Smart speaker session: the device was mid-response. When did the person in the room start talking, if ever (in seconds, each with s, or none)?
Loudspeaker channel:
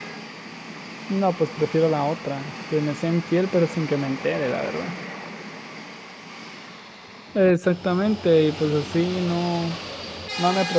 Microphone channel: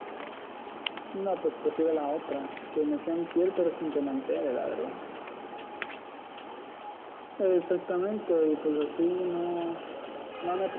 none